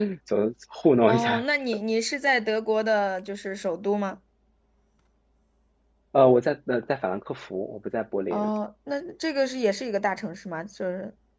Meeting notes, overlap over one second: none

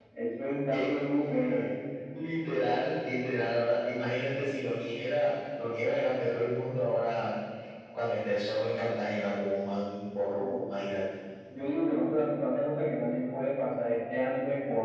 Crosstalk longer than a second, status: none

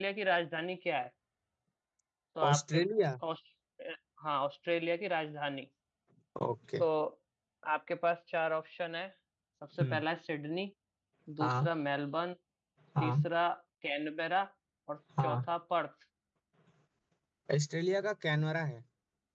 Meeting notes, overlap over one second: none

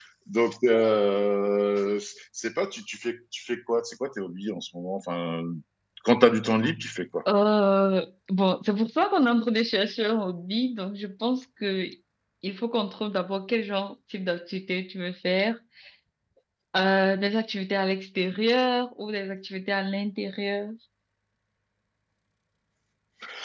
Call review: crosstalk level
none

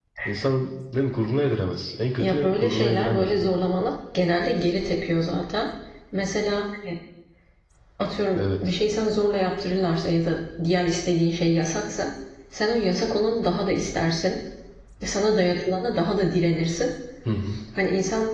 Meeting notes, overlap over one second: present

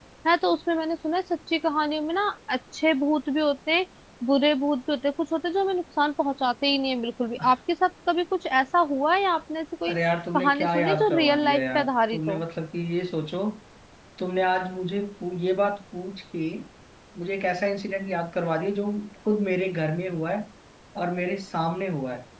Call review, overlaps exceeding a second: present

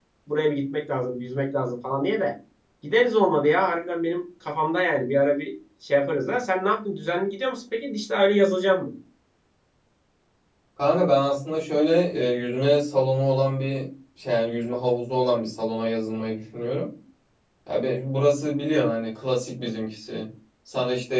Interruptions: none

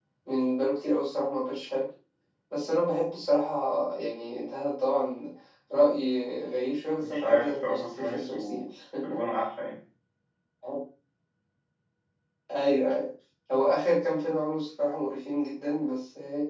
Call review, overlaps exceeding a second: present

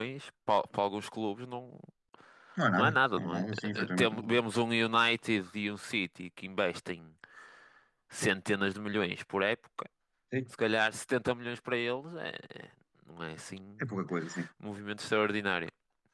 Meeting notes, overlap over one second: present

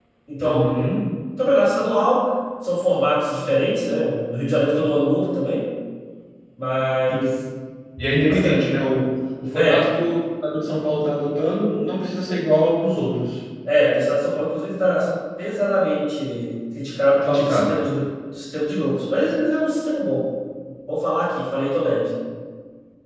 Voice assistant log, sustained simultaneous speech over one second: none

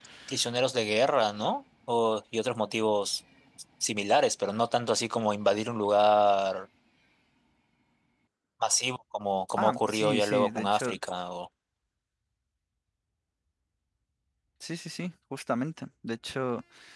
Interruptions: present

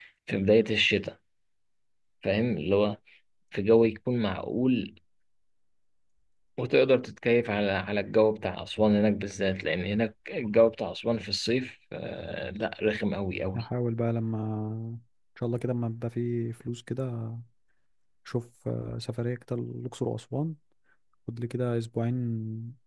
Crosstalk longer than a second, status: none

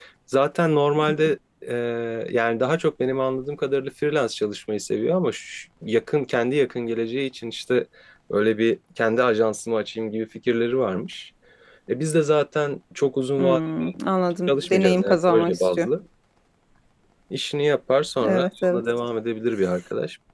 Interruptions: present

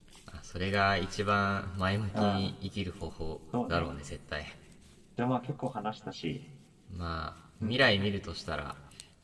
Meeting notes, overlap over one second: none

